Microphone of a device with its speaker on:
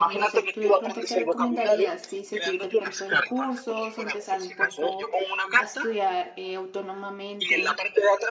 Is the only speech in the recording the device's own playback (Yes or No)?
No